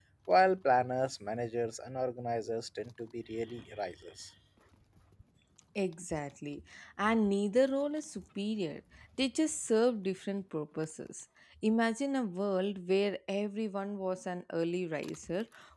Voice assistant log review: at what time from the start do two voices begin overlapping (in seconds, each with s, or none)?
none